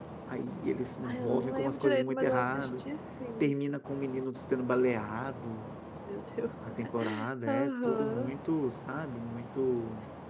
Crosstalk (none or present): present